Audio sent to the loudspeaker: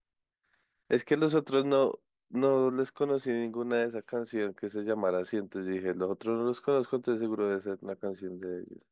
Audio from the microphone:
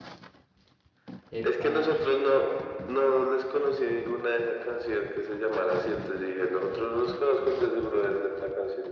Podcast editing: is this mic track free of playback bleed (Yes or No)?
No